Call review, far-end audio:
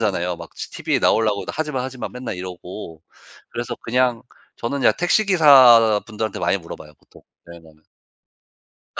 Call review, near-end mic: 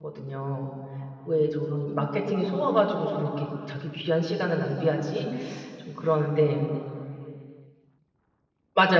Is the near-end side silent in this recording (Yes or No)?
No